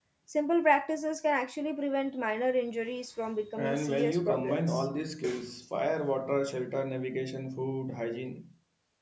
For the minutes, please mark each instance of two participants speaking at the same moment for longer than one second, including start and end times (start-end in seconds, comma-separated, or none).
3.6-4.9